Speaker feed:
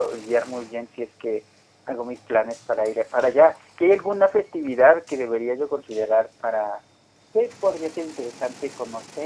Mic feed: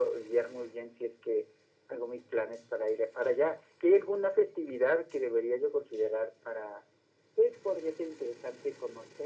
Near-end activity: none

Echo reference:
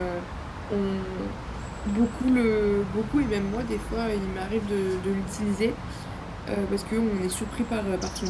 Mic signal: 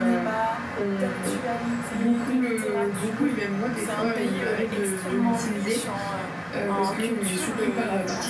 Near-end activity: present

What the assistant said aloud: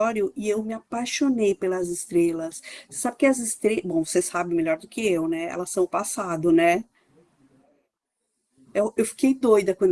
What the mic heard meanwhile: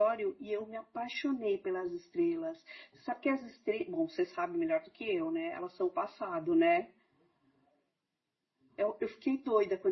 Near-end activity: none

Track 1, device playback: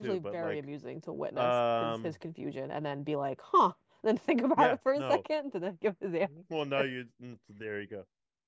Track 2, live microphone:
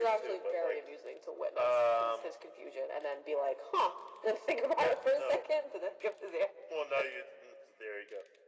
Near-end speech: none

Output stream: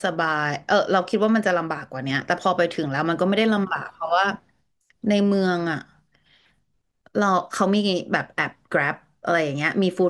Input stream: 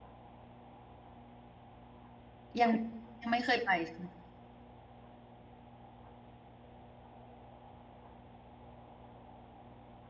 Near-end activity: present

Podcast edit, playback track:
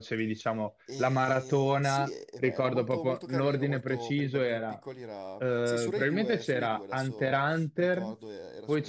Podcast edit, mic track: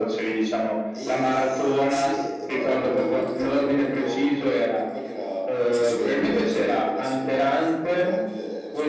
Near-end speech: none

